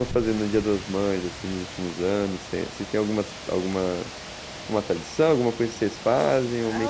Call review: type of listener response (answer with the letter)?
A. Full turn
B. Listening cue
A